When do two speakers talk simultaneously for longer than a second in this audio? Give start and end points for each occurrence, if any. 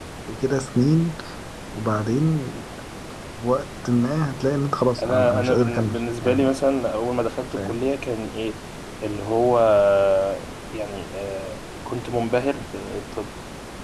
5.0-6.4

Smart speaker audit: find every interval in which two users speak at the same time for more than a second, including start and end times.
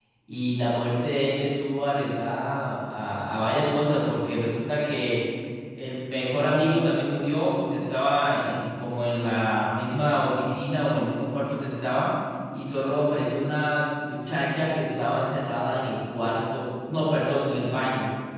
none

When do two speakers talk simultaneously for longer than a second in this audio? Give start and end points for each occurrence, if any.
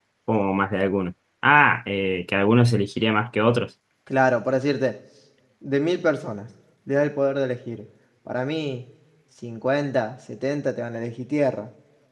none

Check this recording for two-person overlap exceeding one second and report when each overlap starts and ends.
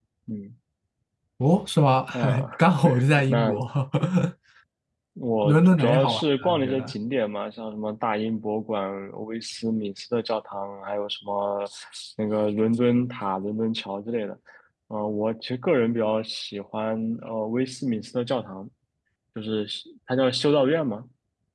5.4-6.9

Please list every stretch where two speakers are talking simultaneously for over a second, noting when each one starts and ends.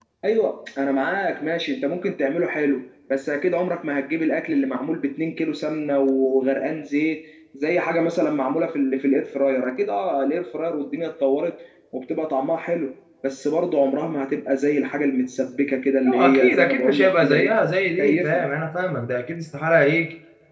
16.1-17.5

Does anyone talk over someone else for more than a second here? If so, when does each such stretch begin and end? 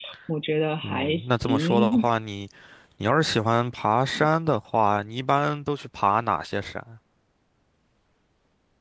0.8-2.0

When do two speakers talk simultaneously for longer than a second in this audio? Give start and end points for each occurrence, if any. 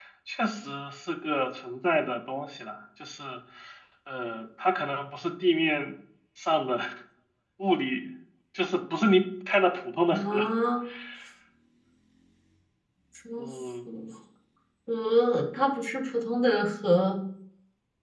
none

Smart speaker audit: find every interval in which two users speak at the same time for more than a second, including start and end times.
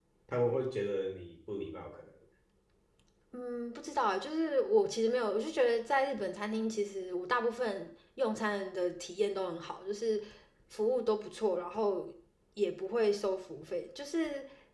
none

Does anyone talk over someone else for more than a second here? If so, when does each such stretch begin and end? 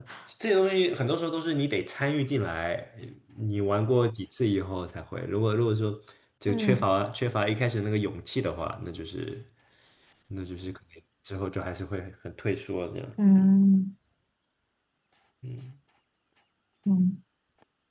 none

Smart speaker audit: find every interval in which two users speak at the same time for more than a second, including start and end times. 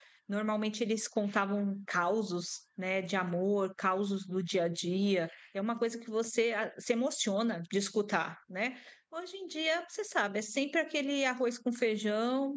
none

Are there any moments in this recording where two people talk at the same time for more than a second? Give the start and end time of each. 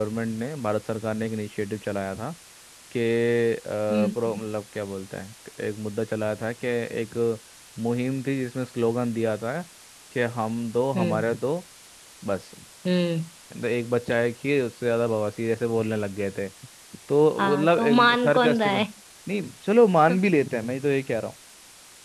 17.4-18.7

